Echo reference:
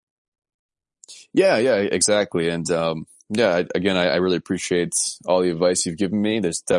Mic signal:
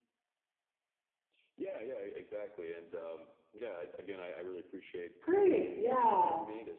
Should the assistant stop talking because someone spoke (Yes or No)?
Yes